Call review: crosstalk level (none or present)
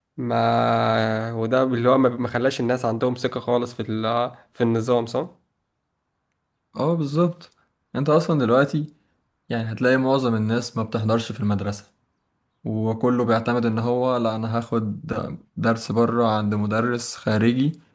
none